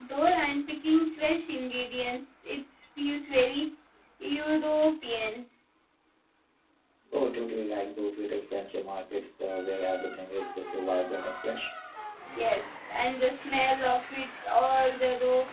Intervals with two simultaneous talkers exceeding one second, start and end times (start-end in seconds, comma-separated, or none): none